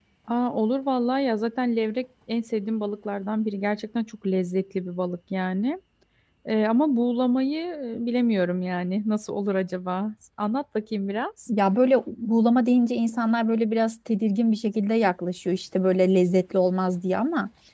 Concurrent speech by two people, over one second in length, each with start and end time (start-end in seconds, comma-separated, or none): none